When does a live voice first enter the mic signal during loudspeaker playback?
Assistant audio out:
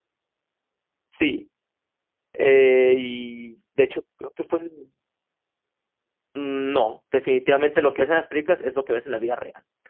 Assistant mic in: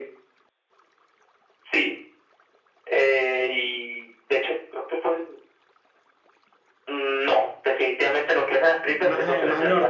8.8 s

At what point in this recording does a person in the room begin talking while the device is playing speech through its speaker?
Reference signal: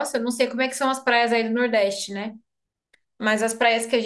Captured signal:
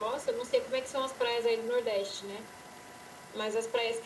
none

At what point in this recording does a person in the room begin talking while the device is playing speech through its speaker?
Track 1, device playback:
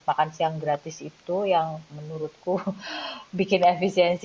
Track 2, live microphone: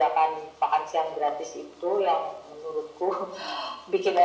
none

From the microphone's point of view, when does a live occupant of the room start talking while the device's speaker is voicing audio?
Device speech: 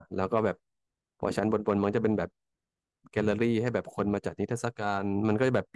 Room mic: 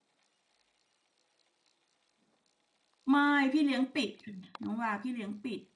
3.1 s

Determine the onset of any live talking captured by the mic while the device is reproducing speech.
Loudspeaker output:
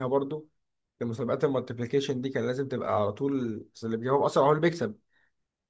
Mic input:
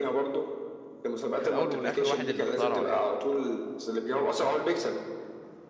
1.4 s

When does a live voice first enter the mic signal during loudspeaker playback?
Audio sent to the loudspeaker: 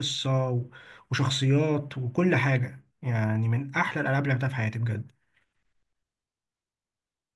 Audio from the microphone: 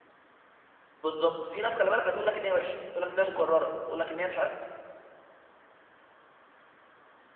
1.0 s

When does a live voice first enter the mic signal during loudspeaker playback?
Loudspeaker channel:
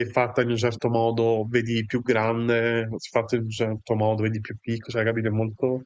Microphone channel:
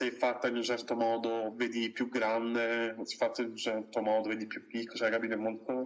none

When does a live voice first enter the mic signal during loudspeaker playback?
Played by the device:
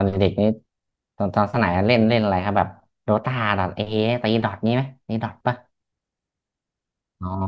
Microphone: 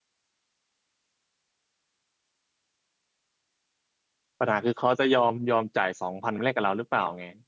4.4 s

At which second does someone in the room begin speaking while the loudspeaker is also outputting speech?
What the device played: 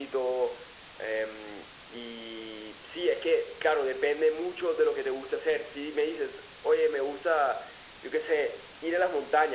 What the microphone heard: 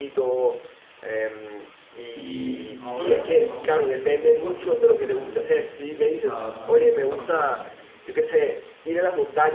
2.1 s

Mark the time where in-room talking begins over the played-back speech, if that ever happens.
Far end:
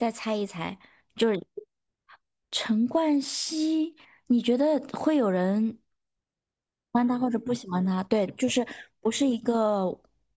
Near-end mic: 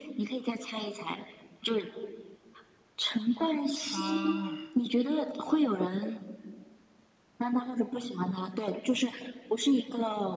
3.8 s

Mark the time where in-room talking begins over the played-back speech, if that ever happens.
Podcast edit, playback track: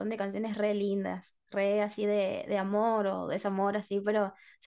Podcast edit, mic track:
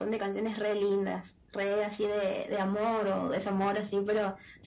none

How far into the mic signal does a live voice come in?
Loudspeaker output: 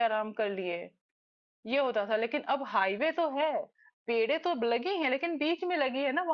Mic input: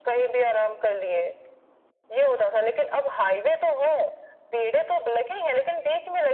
none

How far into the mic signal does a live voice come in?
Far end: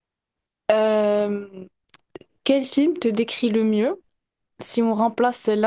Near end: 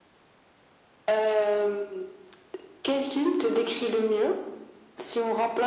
none

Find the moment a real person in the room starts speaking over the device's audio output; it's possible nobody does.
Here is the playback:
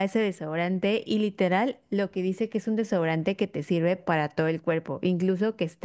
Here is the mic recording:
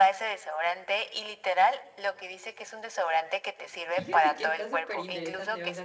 3.9 s

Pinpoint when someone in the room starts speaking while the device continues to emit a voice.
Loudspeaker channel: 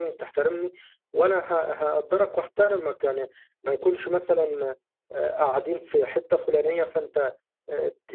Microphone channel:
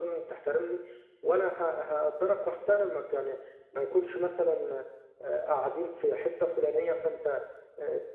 none

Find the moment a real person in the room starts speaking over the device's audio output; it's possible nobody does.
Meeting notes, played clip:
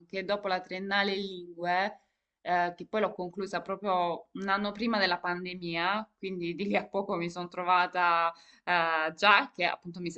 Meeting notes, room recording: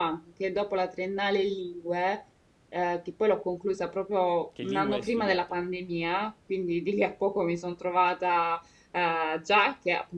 4.5 s

